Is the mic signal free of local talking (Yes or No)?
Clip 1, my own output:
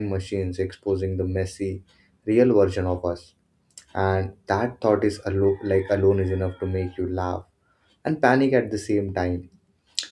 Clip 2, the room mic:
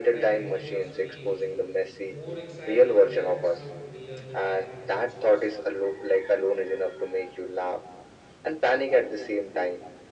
No